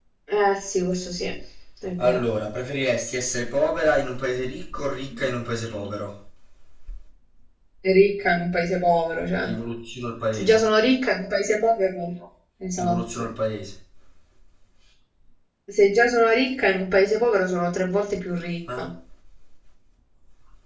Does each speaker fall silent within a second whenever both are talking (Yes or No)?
Yes